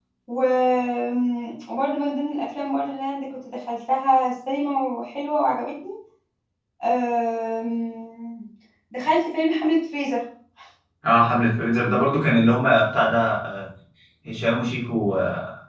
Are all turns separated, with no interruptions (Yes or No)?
Yes